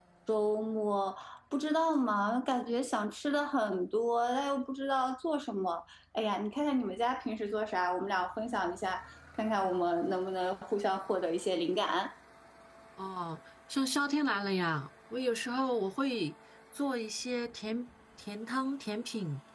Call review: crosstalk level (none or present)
none